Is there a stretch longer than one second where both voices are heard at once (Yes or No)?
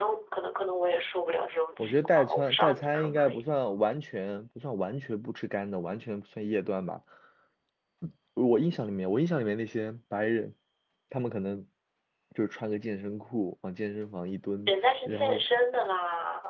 Yes